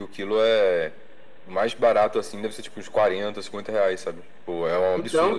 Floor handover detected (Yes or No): Yes